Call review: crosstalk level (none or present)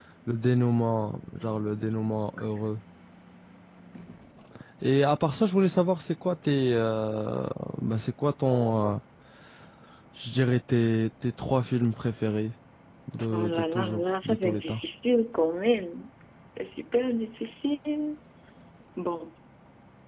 present